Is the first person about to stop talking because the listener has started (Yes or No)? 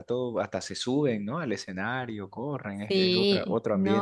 Yes